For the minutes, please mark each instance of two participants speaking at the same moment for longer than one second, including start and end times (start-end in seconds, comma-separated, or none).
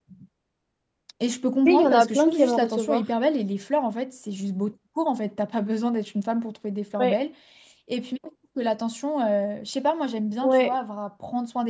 1.6-3.0